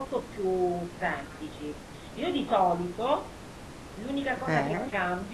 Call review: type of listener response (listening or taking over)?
listening